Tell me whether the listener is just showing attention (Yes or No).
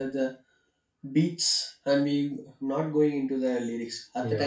Yes